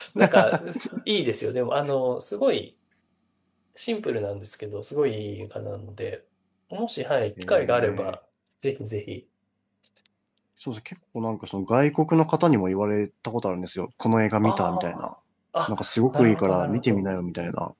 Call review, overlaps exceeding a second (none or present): present